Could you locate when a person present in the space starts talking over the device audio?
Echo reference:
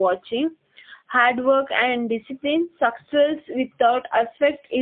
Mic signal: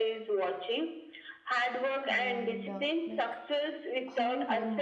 2.1 s

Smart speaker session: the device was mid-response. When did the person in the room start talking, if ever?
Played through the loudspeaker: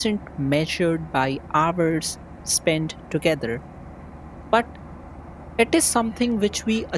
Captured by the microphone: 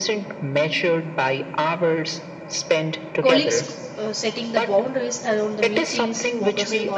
3.2 s

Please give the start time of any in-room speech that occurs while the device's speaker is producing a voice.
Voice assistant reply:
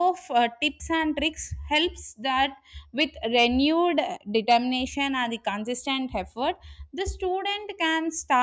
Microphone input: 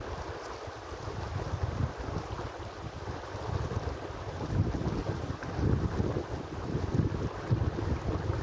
none

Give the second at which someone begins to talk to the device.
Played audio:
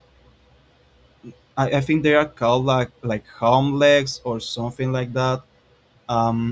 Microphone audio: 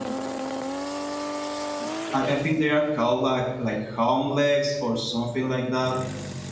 none

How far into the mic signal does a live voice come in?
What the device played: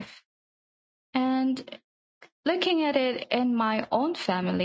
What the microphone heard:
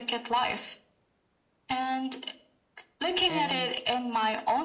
3.3 s

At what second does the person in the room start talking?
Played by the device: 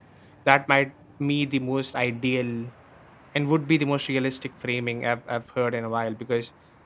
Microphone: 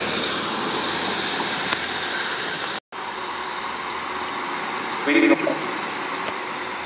5.0 s

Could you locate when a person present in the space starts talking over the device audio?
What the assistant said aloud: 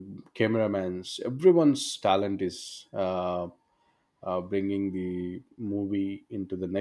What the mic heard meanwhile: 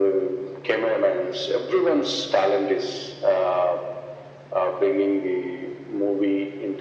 none

